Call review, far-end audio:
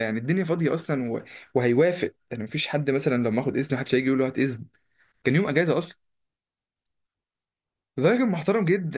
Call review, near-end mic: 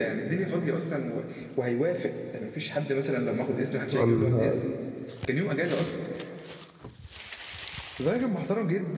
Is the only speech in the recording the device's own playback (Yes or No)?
No